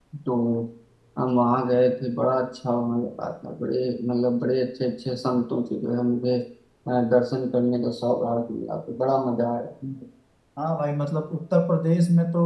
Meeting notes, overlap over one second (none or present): none